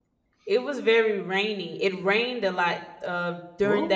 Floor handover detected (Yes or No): No